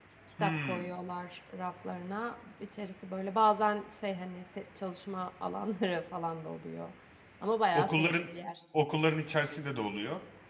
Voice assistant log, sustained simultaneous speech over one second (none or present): none